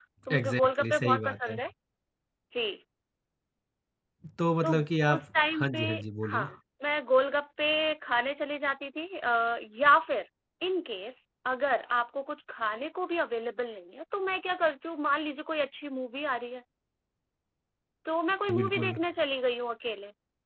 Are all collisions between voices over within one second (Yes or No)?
No